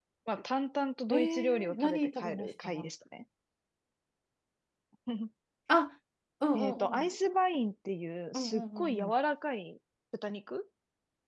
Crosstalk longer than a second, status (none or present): present